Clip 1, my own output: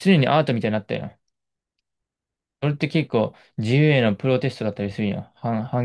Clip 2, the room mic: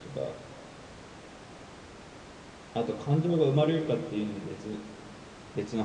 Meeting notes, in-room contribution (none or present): present